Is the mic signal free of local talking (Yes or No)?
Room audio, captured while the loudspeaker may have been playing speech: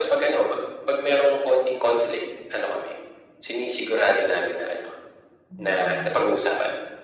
No